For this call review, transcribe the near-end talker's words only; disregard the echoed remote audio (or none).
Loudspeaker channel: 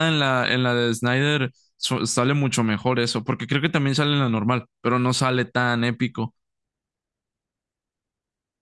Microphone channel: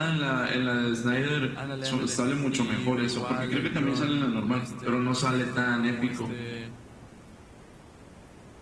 ándale, ándale, y igual el John, este, John Bernthal como este,